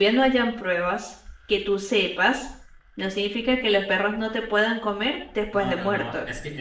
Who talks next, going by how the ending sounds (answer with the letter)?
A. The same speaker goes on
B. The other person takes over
B